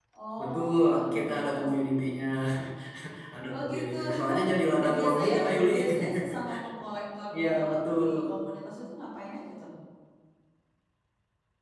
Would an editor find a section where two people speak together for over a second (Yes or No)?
Yes